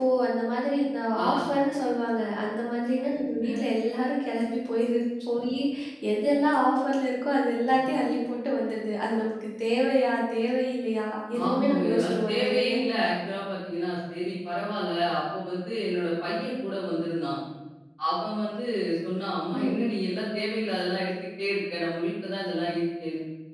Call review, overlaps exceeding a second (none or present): present